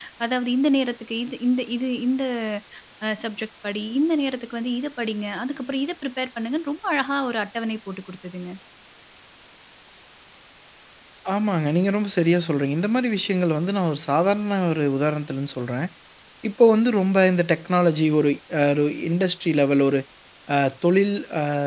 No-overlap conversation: Yes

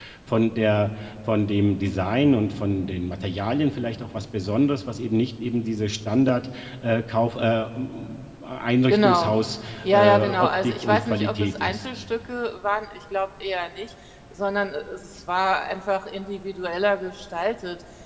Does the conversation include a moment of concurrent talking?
Yes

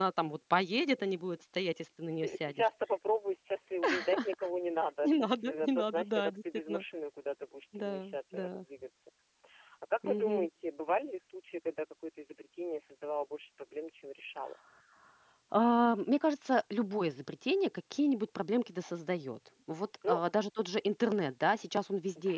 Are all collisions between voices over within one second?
No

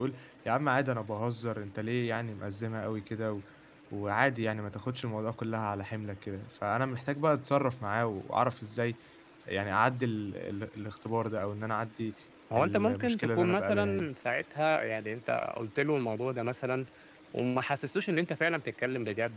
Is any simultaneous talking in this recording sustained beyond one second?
Yes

